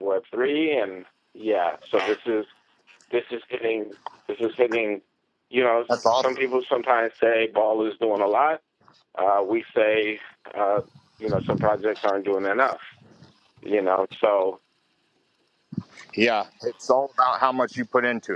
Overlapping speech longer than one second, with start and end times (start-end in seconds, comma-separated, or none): none